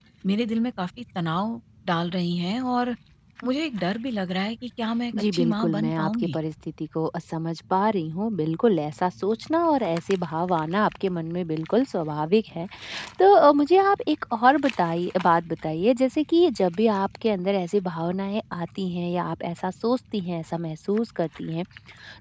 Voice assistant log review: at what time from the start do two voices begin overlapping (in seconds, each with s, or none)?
5.1 s